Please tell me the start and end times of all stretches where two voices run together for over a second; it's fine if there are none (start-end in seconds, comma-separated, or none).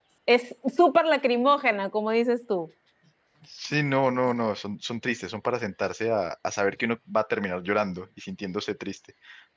none